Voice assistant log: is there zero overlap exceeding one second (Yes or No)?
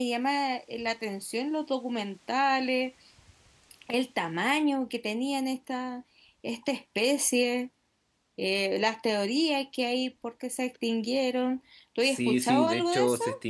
No